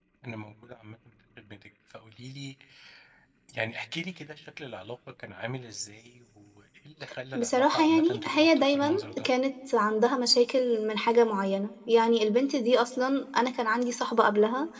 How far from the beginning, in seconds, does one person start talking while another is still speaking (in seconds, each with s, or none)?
7.3 s